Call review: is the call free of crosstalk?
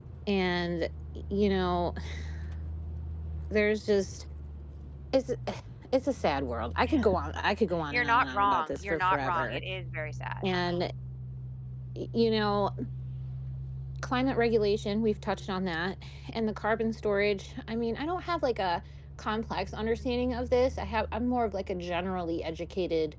No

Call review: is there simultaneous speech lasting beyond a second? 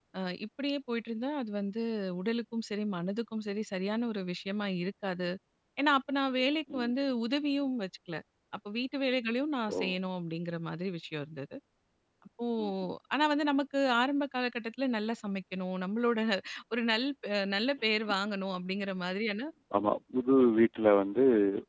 No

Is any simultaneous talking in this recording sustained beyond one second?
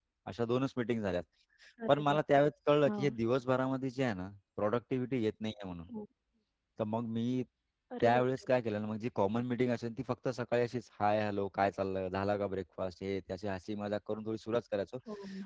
No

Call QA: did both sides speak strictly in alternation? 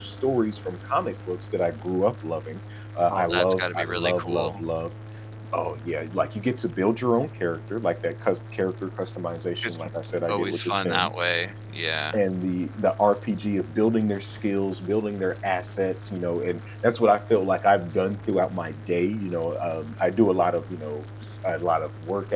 No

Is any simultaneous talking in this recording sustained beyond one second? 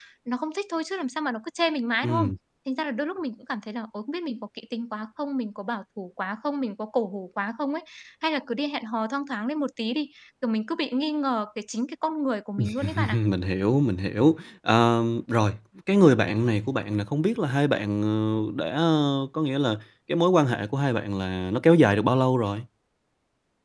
No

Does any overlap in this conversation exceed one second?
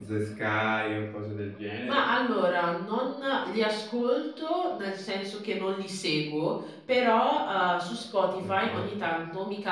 No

